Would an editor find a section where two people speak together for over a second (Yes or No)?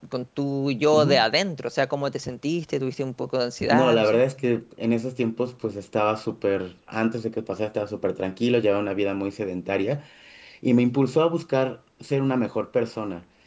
No